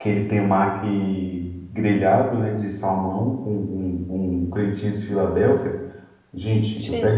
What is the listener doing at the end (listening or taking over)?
listening